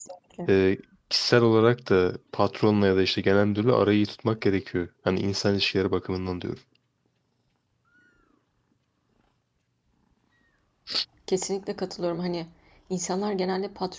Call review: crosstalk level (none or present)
none